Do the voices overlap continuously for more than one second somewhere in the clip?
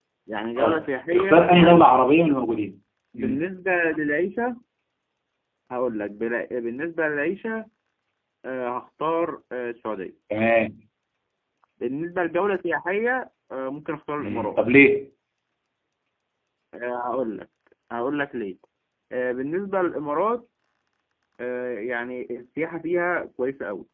Yes, from 0.6 s

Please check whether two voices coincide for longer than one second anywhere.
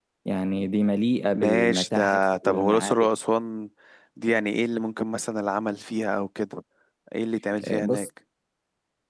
Yes, from 1.3 s

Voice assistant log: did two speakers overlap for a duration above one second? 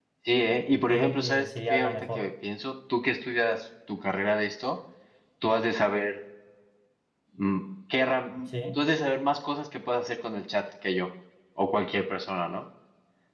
Yes, from 0.9 s

